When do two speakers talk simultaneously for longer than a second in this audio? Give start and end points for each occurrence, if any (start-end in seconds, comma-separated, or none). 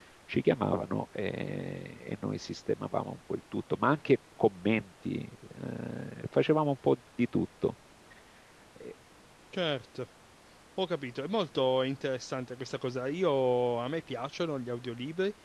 none